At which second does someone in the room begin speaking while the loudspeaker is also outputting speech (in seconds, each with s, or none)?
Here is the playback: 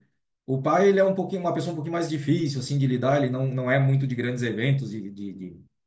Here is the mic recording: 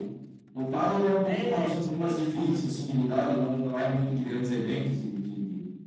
1.2 s